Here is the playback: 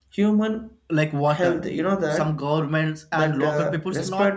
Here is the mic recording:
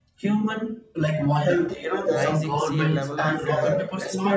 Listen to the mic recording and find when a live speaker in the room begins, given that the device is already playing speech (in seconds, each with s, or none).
2.1 s